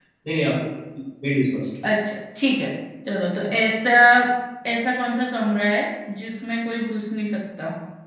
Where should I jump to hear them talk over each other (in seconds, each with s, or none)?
none